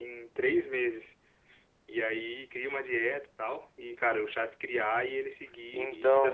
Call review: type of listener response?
listening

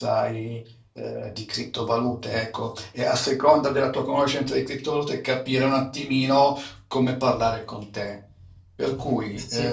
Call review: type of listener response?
listening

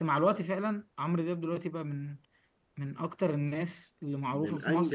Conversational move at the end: taking over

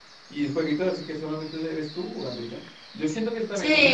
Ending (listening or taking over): taking over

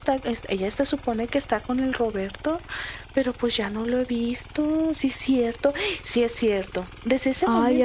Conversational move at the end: listening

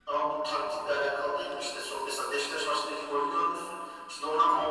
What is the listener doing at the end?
listening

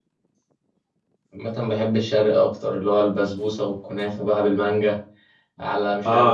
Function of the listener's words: taking over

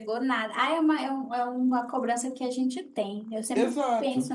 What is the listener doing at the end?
taking over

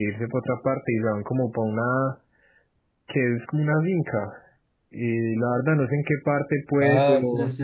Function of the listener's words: taking over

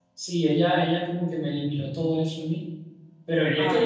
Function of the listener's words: listening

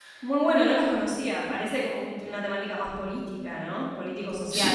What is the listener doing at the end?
taking over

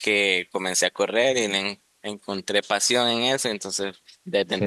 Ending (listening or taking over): listening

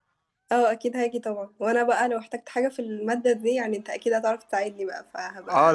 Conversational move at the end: taking over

